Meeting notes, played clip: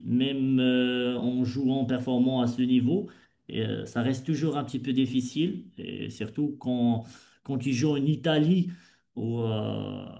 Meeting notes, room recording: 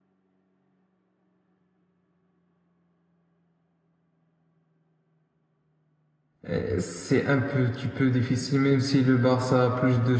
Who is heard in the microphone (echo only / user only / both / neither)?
user only